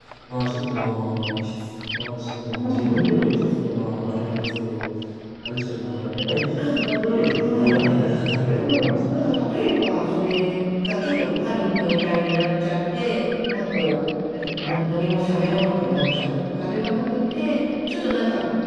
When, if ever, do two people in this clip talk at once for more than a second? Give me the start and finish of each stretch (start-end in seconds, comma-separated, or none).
8.4-9.9